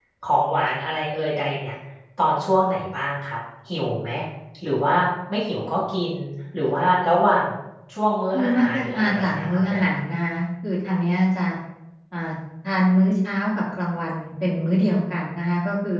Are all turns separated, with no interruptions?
No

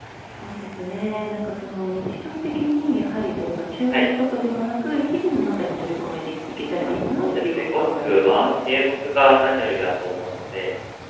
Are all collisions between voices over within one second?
No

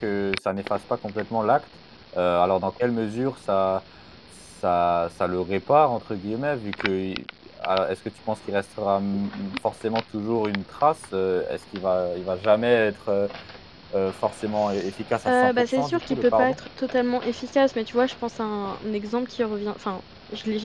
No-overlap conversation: No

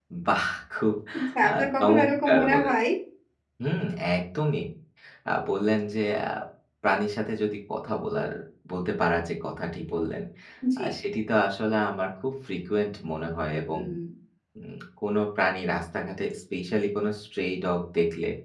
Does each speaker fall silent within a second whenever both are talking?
No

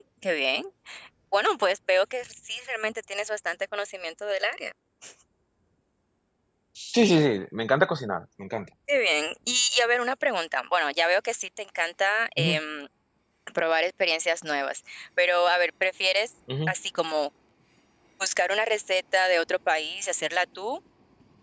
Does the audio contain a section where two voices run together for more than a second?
No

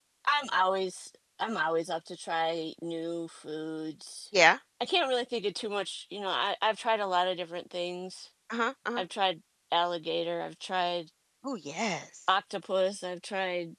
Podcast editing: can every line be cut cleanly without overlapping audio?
Yes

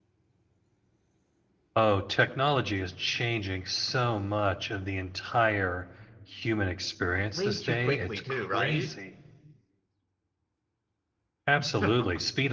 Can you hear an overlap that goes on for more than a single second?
Yes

